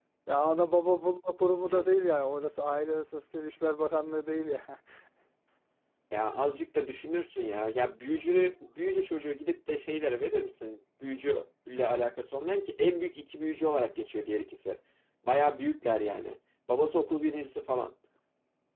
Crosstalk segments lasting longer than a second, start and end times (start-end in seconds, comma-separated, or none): none